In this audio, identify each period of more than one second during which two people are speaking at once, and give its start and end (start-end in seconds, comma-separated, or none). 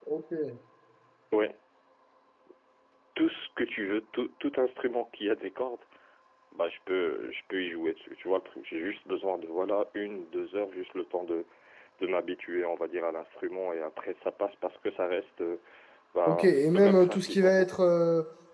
16.3-17.7